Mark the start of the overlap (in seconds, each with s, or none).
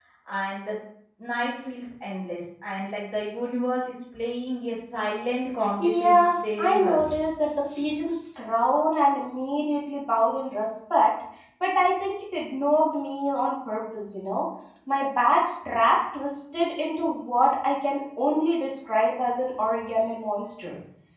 5.8 s